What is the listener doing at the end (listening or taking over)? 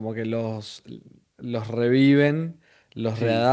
listening